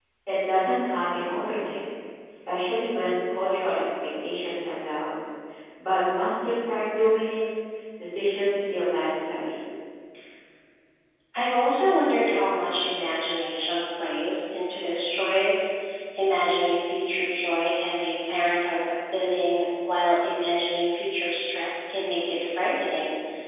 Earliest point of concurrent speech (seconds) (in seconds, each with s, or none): none